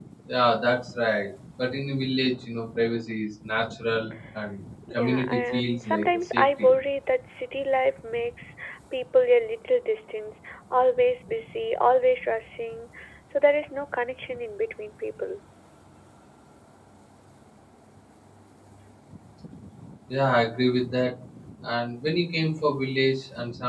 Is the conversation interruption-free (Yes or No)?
No